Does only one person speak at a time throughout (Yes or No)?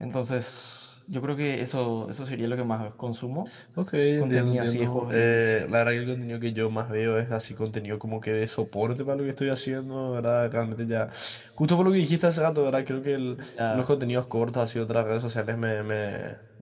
No